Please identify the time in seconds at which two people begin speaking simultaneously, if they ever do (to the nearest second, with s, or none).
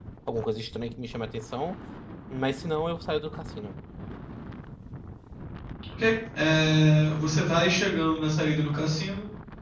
none